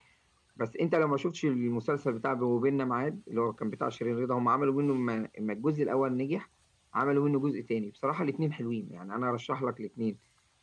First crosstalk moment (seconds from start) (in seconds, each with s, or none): none